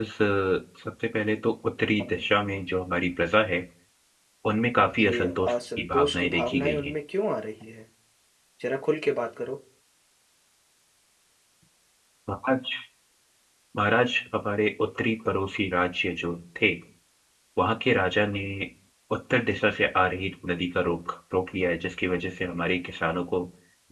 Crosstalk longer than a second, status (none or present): present